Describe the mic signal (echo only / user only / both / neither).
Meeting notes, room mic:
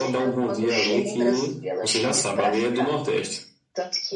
both